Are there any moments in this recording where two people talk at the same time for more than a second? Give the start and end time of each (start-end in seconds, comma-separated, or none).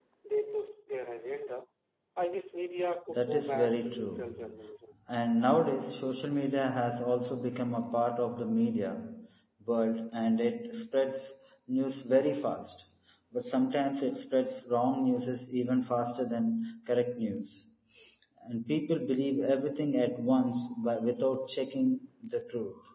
3.1-4.5